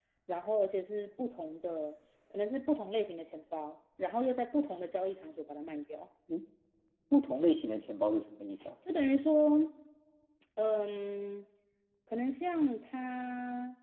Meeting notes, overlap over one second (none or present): none